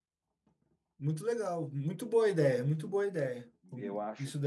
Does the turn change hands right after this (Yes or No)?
Yes